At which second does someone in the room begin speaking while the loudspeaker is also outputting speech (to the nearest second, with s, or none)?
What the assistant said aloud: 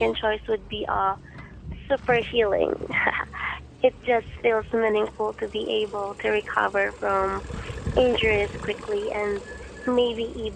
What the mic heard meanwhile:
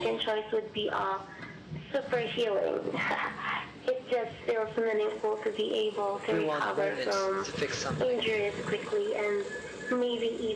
6 s